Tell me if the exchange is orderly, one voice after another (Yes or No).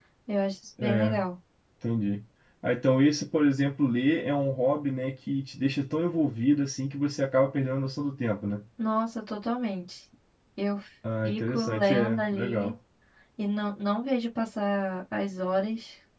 No